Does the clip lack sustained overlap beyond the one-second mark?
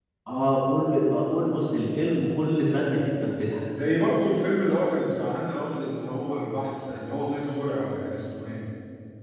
Yes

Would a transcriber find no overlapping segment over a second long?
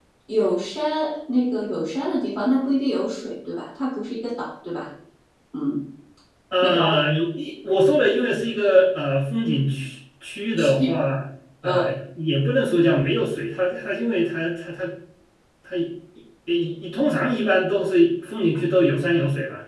Yes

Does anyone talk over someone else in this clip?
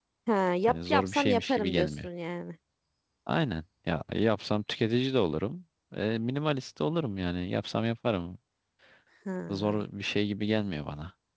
Yes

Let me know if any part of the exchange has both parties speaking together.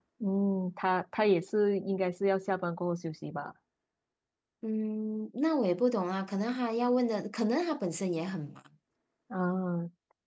No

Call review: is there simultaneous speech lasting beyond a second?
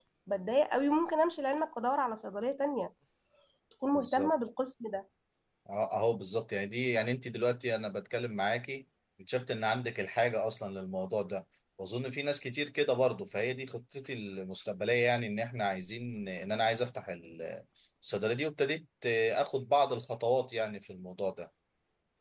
No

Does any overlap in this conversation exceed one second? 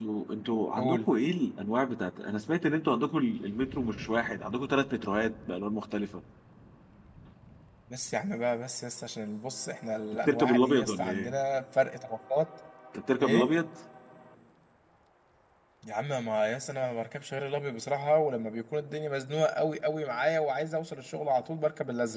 Yes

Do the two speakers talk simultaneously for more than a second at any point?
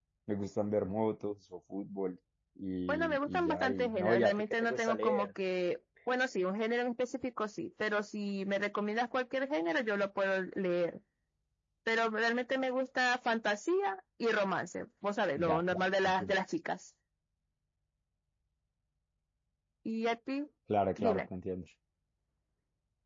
Yes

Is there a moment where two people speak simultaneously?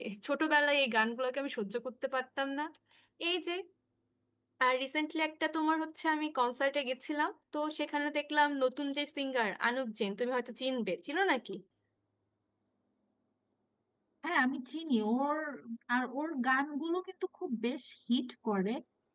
No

